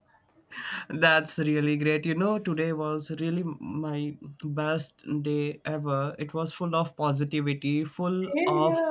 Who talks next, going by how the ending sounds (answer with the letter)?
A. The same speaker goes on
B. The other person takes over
A